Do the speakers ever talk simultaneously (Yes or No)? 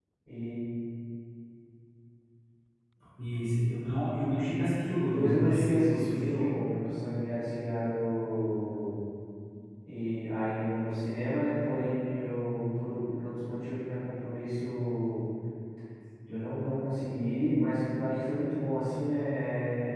Yes